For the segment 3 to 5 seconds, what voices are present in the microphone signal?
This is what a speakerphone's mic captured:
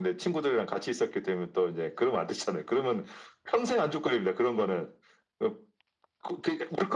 echo only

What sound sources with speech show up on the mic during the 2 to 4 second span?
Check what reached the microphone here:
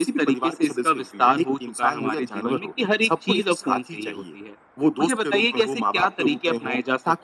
echo only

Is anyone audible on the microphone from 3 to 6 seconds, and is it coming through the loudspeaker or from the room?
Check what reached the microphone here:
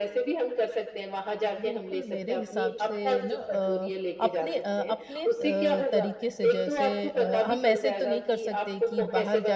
both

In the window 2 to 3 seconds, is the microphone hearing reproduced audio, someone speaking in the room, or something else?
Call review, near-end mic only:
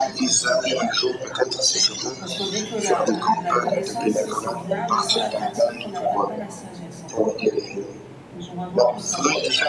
both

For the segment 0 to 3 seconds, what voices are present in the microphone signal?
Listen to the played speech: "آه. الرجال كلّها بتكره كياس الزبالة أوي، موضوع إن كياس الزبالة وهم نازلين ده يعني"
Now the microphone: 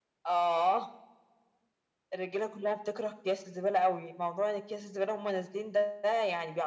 echo only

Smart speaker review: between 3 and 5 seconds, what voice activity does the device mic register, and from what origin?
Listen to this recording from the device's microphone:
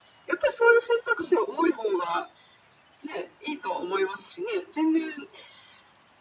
echo only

